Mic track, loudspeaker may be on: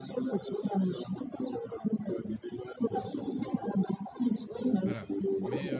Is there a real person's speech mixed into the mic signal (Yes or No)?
Yes